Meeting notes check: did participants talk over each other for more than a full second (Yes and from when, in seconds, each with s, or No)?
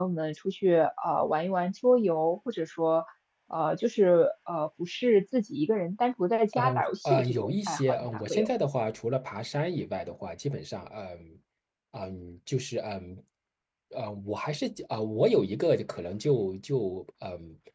Yes, from 6.5 s